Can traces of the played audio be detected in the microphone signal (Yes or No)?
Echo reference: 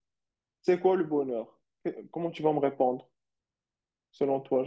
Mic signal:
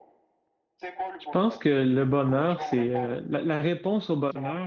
Yes